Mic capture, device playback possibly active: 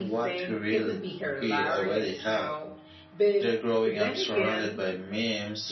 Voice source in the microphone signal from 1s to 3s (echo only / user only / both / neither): both